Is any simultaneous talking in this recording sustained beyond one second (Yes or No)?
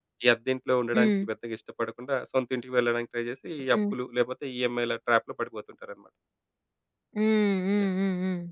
No